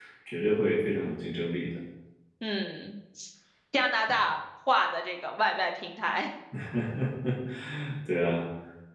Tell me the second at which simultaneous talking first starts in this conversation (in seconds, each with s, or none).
none